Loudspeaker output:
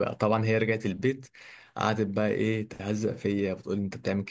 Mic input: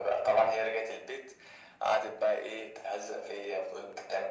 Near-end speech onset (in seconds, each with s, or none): none